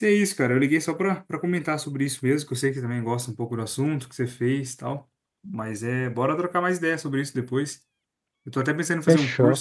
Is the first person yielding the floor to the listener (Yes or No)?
No